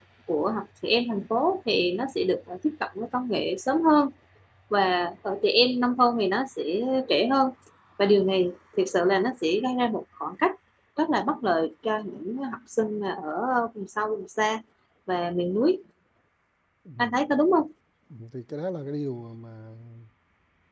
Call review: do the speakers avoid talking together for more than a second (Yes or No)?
Yes